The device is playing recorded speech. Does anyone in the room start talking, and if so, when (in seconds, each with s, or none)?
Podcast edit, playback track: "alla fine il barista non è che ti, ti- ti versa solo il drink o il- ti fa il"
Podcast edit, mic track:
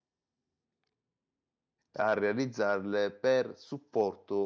1.9 s